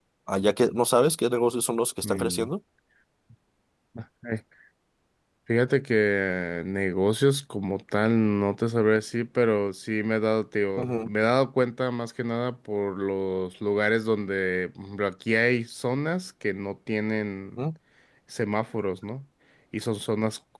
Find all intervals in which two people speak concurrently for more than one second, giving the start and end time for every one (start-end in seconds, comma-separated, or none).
none